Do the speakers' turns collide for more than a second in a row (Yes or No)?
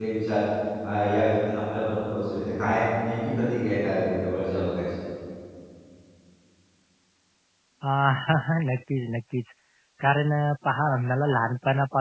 No